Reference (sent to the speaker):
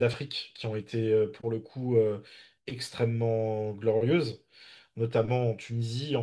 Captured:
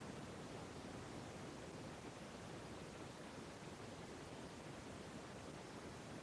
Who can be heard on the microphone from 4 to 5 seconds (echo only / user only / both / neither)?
neither